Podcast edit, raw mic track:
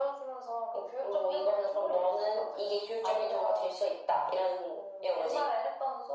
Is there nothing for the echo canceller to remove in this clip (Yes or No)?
No